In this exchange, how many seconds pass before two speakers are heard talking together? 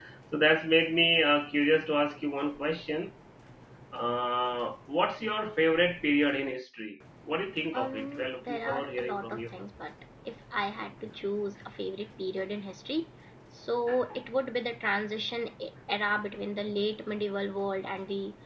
7.7 s

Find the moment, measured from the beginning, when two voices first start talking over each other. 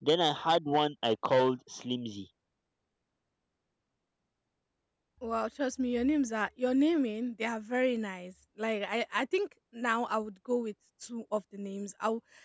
none

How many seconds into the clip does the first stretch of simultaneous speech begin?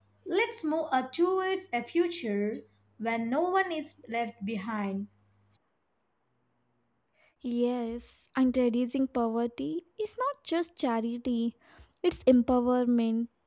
none

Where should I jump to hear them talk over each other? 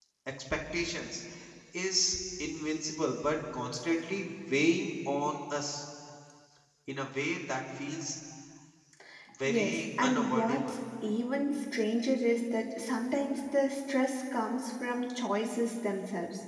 9.4 s

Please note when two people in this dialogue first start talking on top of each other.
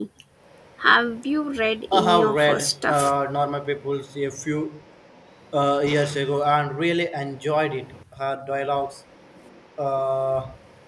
1.9 s

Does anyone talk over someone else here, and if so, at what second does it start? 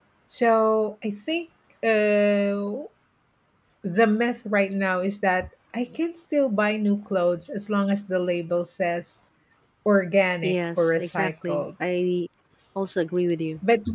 10.4 s

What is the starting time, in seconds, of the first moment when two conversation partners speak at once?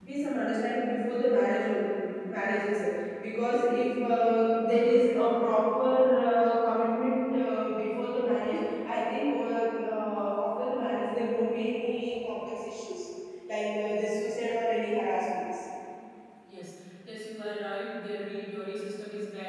none

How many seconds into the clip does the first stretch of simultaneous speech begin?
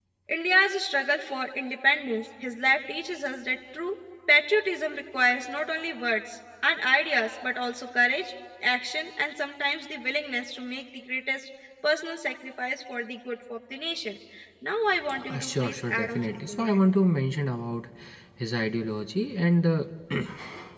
15.3 s

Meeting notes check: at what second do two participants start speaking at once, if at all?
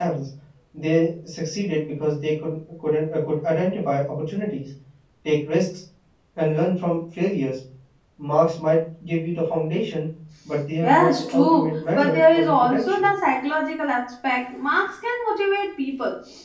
10.8 s

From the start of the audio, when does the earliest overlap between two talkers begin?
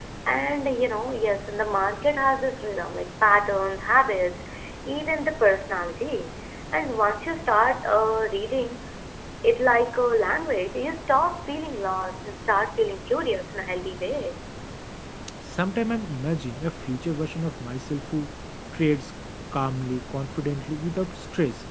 none

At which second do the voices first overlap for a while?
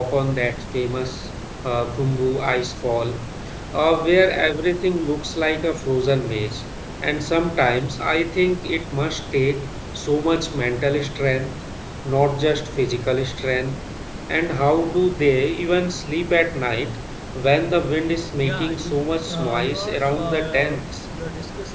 18.4 s

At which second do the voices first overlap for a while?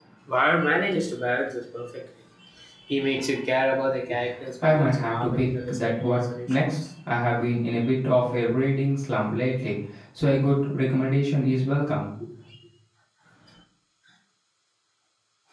4.6 s

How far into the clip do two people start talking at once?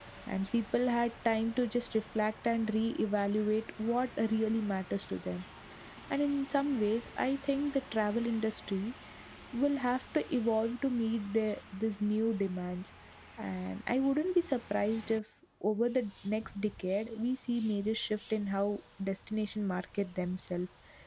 none

